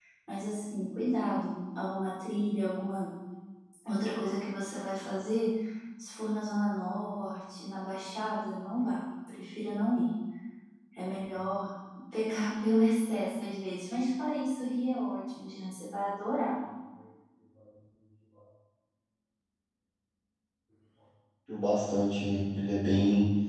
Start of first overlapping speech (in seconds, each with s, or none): none